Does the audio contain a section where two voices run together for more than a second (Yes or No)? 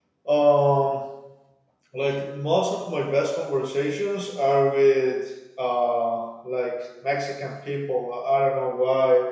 No